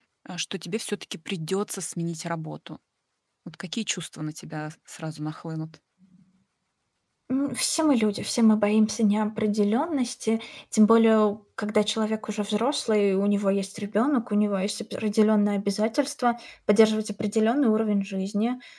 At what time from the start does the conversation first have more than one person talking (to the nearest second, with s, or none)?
none